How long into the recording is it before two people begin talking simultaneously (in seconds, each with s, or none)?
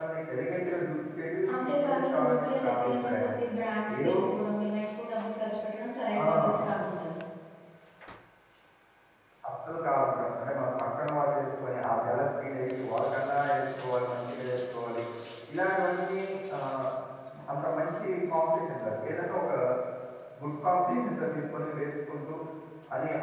1.6 s